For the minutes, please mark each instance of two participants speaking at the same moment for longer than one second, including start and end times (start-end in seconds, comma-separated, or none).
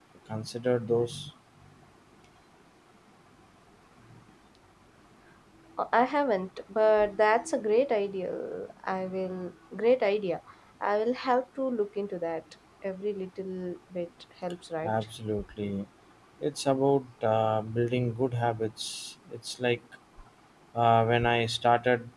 none